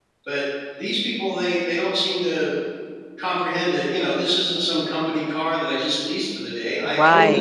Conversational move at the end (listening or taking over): taking over